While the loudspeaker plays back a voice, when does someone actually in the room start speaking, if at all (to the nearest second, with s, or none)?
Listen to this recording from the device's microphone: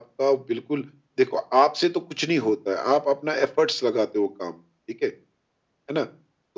none